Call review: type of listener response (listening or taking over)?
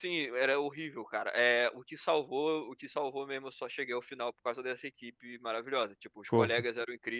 listening